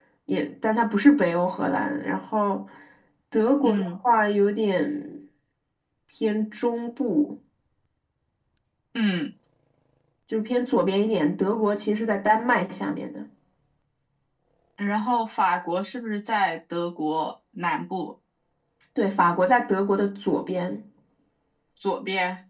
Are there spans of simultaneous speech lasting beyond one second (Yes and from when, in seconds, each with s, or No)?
No